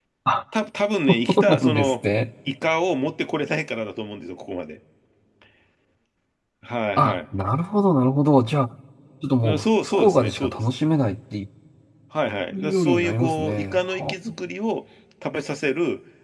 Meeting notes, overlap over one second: present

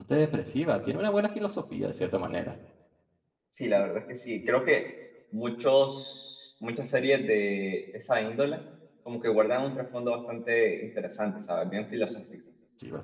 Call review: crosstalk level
none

